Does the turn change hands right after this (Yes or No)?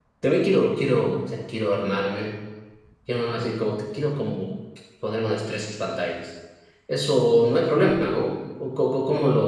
Yes